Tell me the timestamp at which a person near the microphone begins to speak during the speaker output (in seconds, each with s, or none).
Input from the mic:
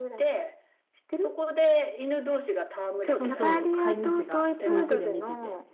3.0 s